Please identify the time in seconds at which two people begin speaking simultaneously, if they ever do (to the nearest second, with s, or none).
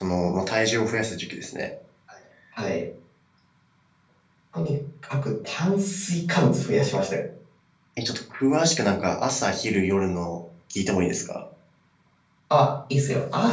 none